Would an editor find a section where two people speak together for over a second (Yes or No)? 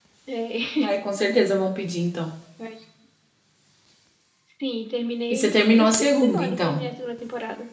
Yes